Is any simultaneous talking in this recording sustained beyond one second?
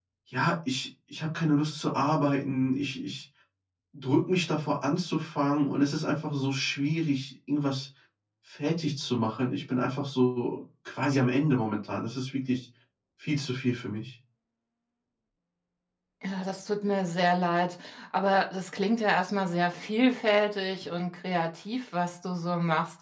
No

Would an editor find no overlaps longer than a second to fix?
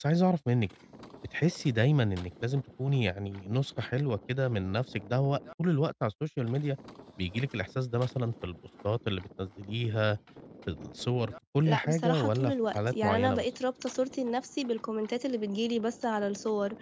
No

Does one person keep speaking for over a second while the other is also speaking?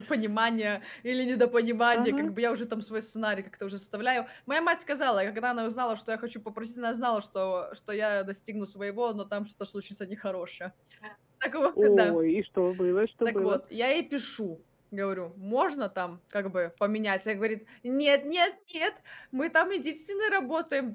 No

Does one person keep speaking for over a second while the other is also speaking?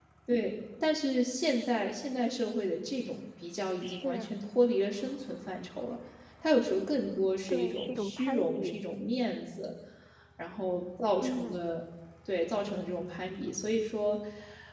Yes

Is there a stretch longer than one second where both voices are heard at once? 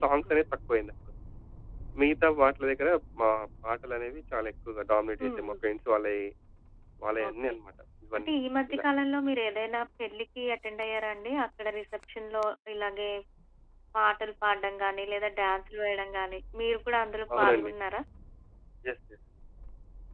No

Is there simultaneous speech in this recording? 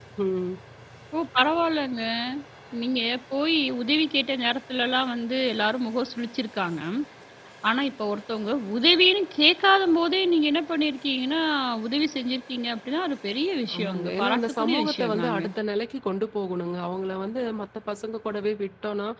Yes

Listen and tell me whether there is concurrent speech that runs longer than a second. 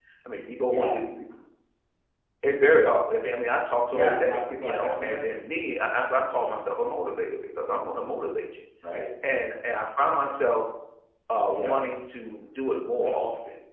Yes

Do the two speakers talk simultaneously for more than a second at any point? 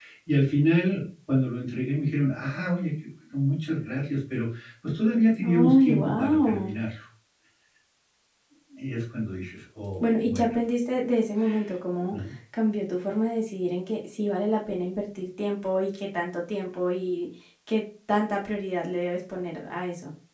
Yes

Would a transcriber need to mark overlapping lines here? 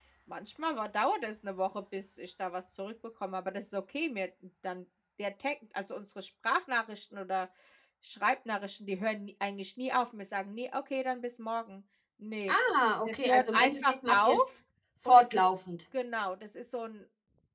Yes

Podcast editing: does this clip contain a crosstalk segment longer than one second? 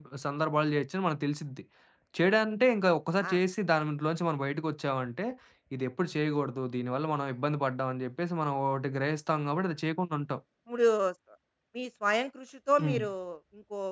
No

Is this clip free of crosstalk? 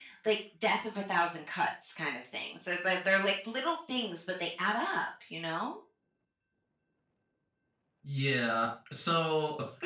Yes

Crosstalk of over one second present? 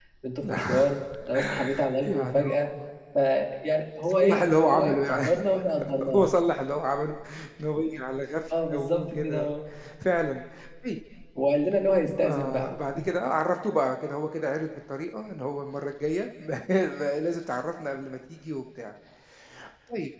Yes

